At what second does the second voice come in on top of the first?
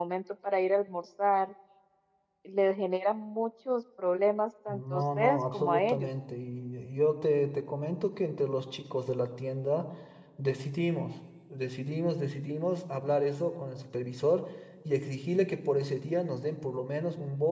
4.7 s

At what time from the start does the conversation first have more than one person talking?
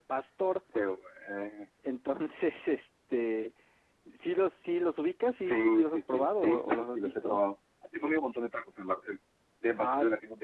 5.3 s

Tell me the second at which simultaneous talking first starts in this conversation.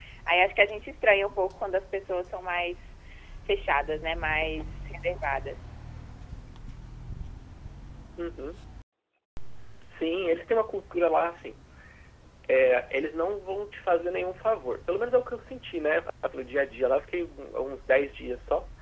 none

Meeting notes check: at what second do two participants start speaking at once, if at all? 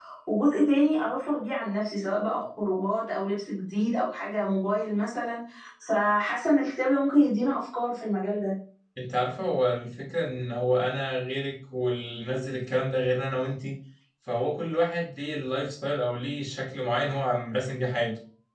none

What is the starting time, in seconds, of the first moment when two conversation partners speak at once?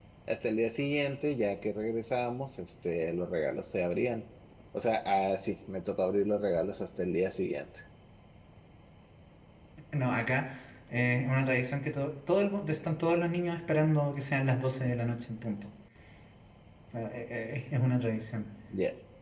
none

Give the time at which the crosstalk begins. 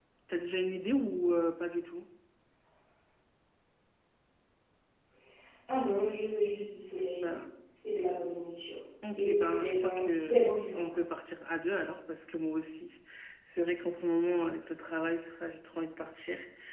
9.0 s

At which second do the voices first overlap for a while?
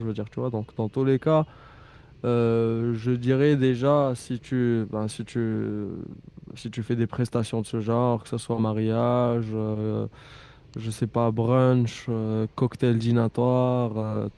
none

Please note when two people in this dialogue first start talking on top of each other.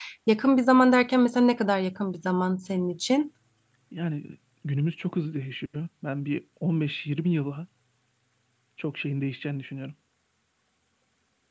none

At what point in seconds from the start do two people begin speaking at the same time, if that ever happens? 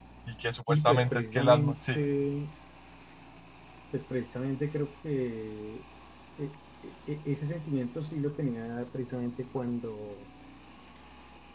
0.5 s

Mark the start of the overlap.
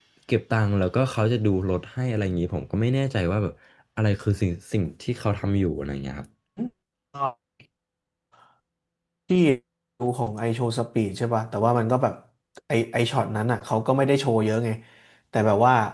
none

